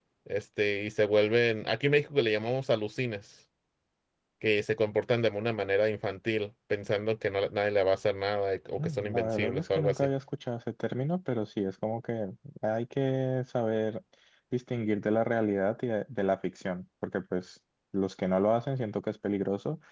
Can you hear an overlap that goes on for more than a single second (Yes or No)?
Yes